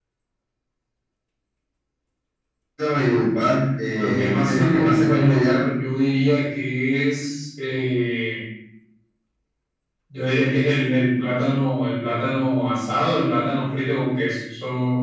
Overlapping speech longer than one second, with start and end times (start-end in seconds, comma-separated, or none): 4.0-5.6